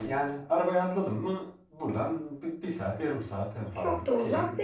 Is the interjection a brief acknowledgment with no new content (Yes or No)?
No